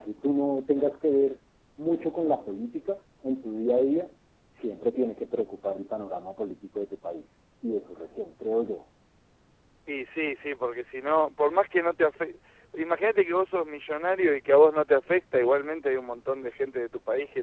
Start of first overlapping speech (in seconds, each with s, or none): none